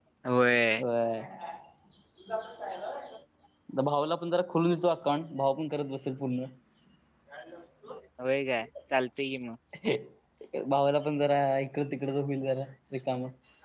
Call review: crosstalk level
none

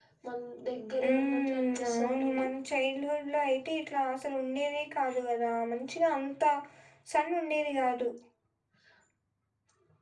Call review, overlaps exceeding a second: present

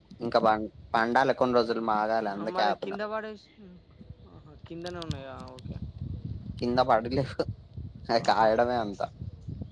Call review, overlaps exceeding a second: none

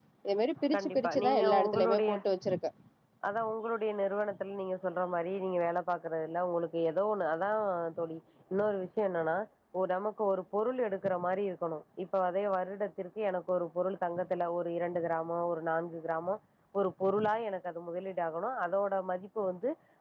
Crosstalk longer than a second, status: present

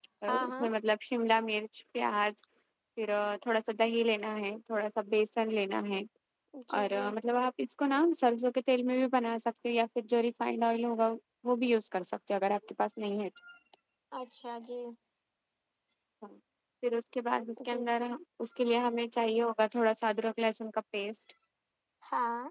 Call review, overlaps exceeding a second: none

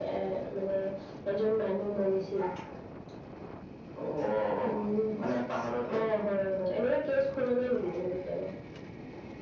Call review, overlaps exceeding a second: none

